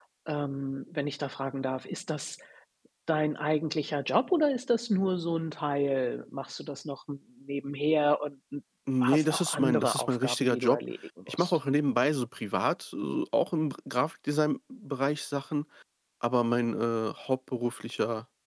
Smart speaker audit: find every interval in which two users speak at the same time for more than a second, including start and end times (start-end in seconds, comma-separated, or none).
9.0-10.8